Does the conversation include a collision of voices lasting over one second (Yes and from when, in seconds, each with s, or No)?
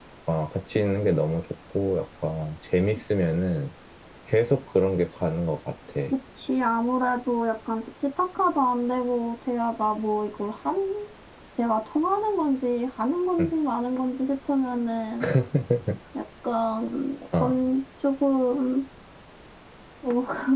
No